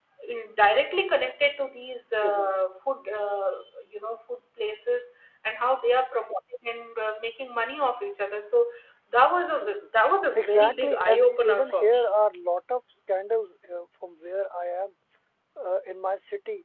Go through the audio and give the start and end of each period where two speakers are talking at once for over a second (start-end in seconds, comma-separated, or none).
10.3-12.1